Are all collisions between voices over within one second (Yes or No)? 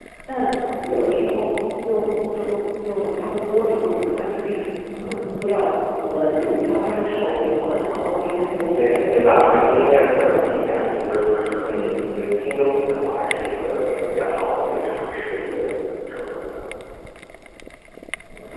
No